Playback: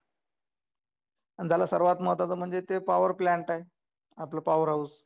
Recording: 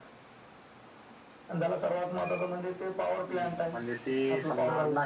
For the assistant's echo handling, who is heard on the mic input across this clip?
both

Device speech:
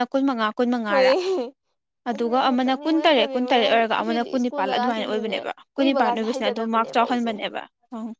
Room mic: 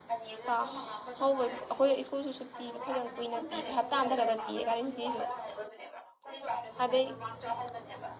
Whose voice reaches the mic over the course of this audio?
both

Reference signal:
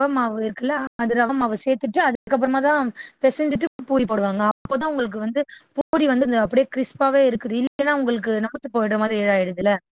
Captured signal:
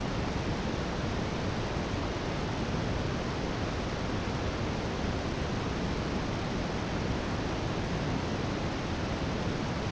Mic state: neither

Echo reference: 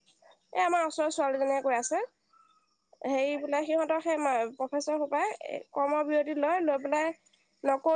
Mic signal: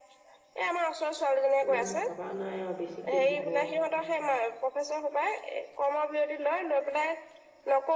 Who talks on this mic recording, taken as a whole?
both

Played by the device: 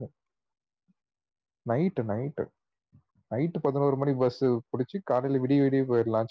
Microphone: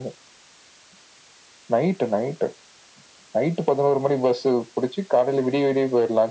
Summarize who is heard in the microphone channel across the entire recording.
echo only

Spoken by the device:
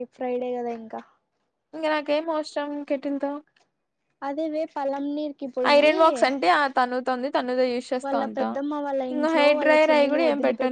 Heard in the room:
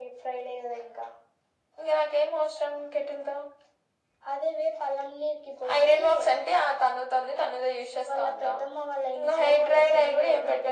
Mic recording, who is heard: echo only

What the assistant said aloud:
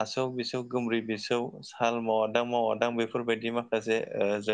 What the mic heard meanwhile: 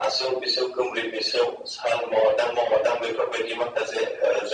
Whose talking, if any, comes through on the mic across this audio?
echo only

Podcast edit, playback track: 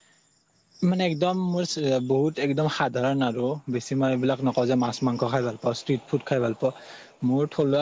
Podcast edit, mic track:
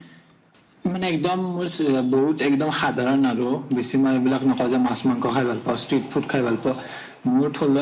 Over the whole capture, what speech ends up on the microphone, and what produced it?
echo only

